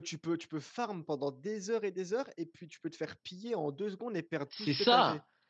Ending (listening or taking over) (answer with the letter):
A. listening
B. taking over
B